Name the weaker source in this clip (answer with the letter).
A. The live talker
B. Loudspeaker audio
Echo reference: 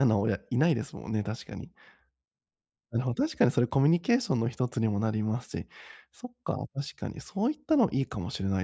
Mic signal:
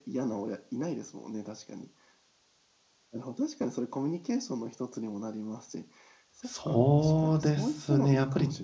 B